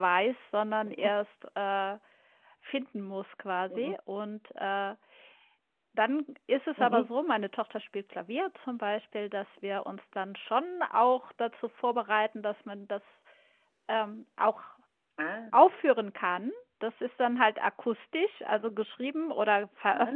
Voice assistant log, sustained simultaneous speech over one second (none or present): none